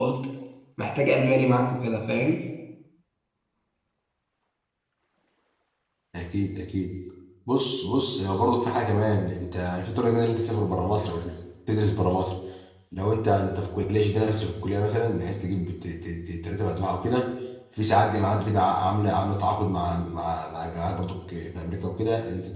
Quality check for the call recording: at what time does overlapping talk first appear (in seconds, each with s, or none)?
none